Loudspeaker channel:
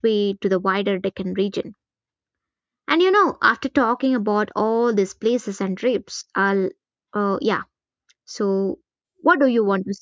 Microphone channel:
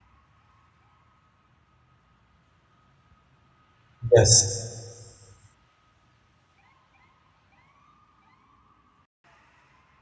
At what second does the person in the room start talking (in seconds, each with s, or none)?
4.1 s